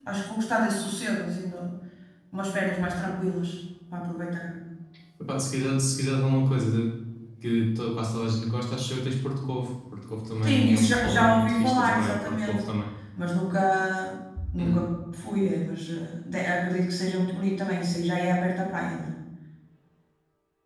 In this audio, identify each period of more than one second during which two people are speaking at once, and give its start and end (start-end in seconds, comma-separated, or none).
10.4-12.7